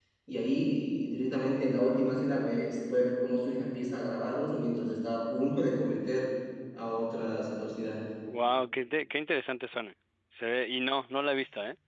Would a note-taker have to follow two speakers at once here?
No

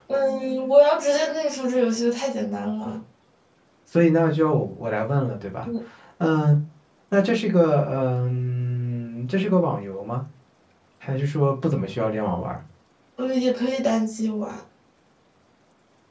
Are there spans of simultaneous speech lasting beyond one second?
No

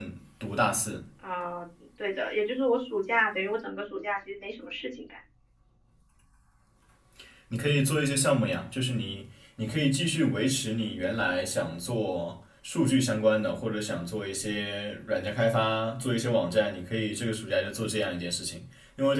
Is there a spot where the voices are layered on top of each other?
No

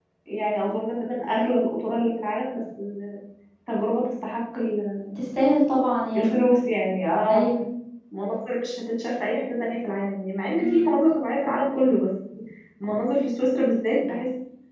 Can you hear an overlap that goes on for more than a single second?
No

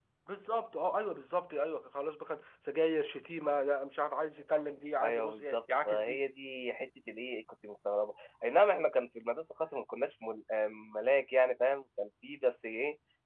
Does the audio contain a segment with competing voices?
Yes, from 5.0 s

